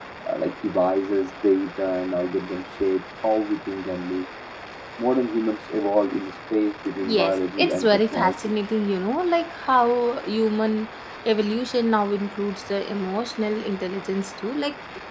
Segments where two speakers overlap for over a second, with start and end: 7.1-8.3

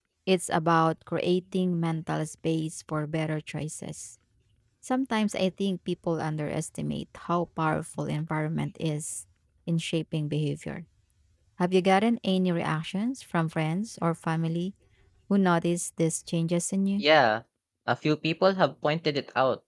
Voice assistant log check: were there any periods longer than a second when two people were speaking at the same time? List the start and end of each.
none

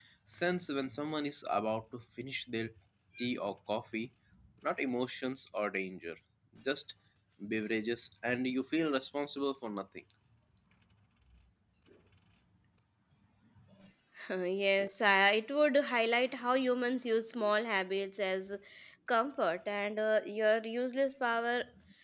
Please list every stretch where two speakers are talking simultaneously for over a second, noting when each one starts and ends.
none

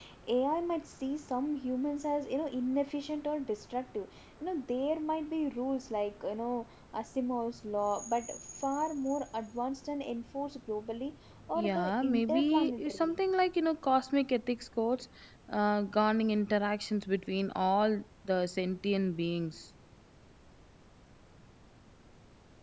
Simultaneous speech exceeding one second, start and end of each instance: 11.6-13.1

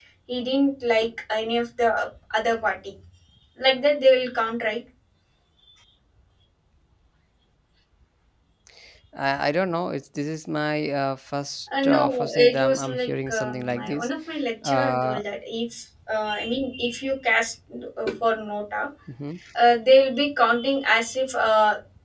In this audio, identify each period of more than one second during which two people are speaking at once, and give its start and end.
11.8-14.1

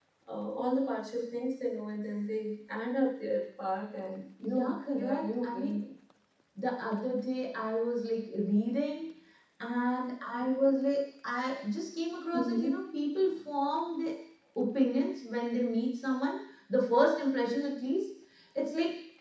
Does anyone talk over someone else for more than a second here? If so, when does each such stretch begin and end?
4.4-5.8

